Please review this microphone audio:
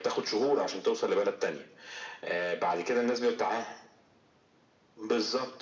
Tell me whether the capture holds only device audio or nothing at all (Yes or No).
Yes